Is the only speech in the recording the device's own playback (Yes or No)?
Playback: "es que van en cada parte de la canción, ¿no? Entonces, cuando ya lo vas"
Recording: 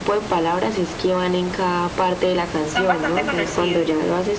No